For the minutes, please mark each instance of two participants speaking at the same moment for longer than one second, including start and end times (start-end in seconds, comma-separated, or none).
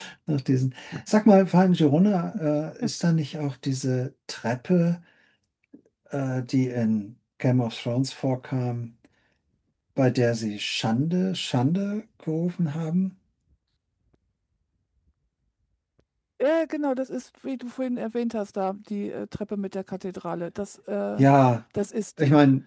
none